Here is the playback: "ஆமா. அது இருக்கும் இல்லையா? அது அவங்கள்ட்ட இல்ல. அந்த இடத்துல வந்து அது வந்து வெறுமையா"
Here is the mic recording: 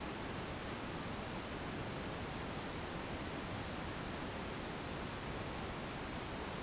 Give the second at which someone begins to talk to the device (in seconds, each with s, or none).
none